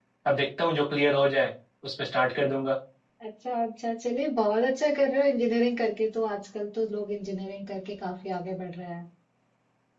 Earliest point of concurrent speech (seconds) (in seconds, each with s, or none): none